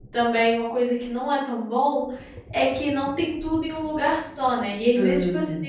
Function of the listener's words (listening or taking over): listening